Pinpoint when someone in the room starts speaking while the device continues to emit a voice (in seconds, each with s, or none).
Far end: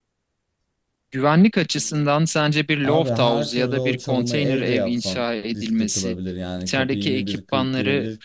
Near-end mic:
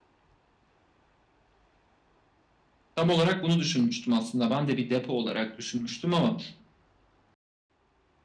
3.0 s